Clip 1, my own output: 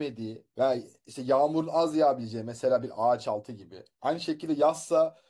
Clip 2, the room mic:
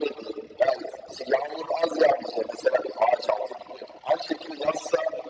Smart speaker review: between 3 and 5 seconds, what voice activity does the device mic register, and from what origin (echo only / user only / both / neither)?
echo only